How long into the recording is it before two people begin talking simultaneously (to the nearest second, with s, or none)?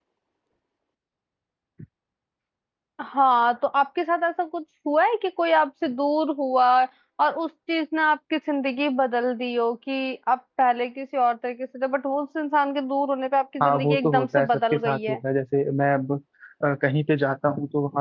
14 s